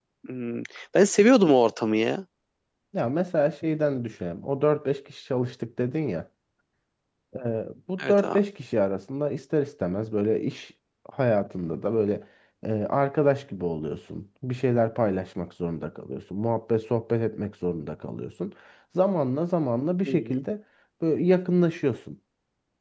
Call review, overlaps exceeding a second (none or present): none